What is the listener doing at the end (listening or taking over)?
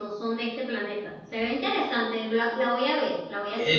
taking over